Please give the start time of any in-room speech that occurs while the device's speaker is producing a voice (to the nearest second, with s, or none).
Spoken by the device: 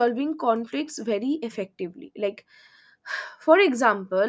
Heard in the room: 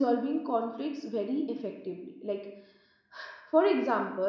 none